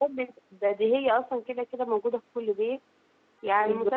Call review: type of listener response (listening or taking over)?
listening